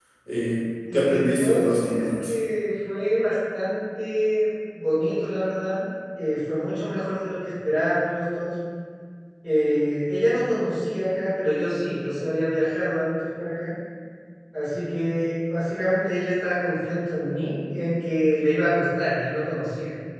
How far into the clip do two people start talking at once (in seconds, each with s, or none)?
0.9 s